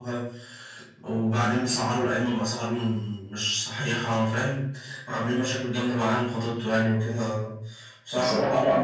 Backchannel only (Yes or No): Yes